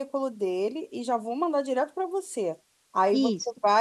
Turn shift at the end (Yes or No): No